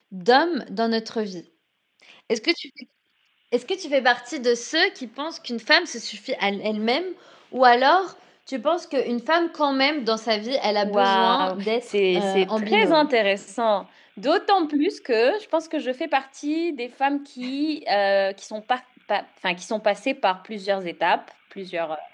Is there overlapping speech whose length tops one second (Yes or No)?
Yes